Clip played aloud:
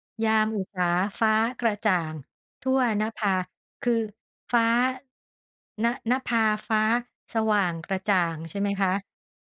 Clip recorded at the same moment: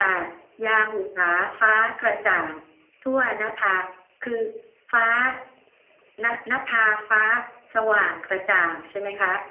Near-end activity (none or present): none